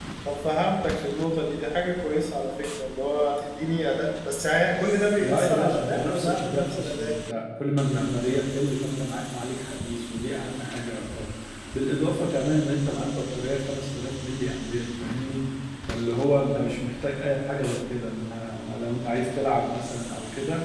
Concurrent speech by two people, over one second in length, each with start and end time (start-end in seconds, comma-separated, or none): 5.2-7.1